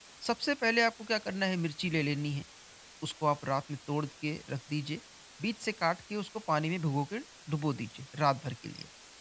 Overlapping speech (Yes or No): No